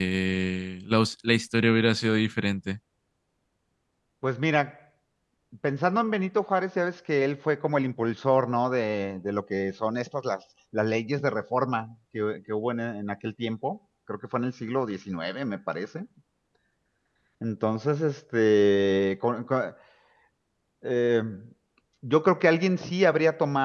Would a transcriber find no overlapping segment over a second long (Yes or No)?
Yes